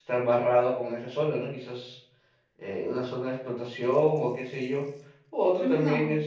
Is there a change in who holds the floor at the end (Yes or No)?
No